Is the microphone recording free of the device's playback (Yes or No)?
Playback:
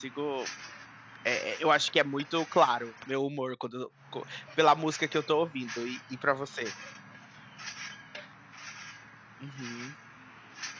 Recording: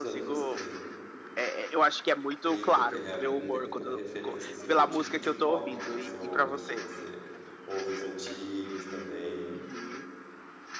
No